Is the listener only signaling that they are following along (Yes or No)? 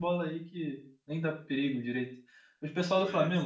Yes